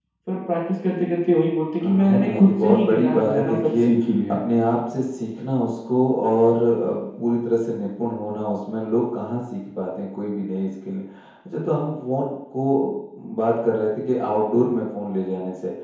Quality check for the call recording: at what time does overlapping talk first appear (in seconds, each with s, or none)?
1.8 s